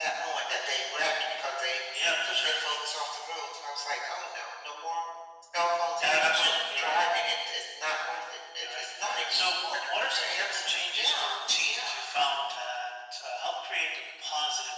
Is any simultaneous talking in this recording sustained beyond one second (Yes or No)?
Yes